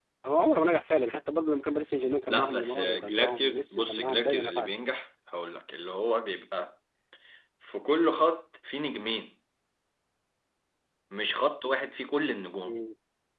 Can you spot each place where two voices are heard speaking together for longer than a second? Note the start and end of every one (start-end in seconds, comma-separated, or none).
2.3-4.8